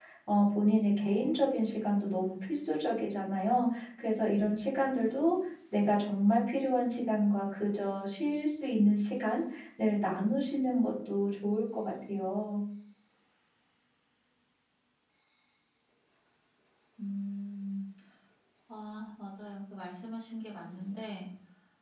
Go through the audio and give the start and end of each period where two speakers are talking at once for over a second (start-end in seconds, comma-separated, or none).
none